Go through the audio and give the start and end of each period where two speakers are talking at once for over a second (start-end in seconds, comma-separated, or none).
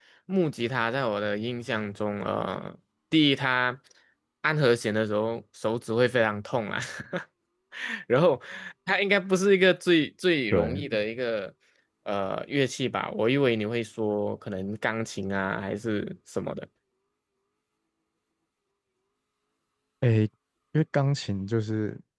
none